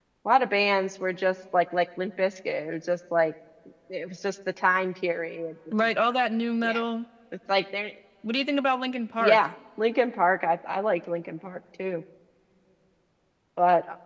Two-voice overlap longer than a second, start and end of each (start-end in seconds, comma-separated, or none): none